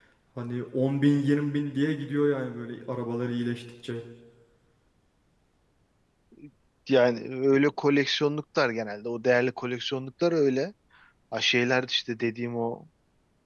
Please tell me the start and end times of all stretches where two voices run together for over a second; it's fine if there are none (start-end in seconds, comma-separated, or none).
none